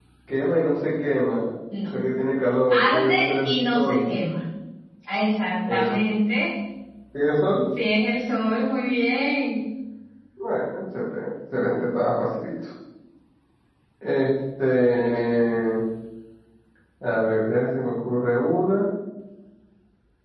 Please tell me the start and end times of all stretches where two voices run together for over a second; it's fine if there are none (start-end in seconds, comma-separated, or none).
2.7-4.0